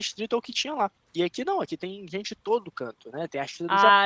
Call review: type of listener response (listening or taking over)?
listening